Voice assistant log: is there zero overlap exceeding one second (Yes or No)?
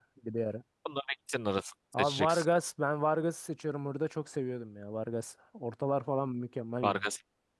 Yes